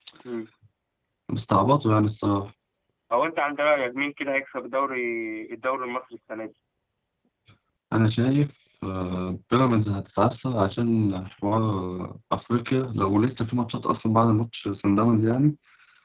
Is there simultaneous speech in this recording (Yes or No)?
No